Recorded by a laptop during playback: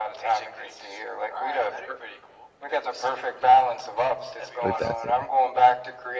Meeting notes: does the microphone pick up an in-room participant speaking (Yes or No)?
Yes